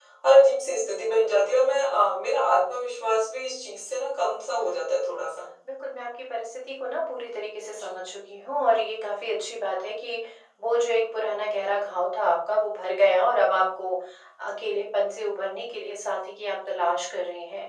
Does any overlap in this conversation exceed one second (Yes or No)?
No